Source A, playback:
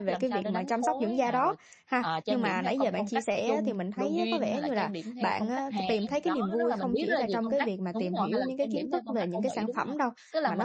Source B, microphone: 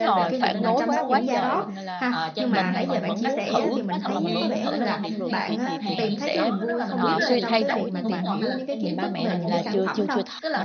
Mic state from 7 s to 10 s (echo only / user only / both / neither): both